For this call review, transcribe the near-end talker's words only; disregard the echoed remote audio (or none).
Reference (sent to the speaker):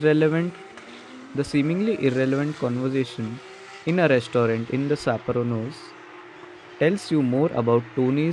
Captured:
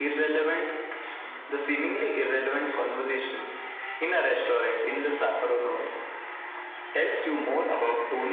none